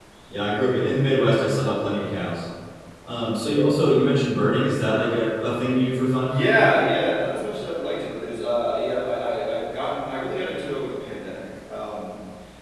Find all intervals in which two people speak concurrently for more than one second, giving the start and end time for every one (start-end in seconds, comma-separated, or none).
none